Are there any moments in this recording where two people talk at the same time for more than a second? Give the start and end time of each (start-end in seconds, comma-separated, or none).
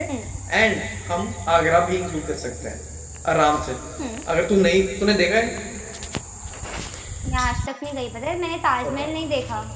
none